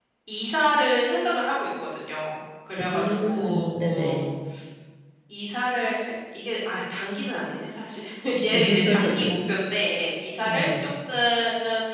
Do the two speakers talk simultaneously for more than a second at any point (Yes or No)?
Yes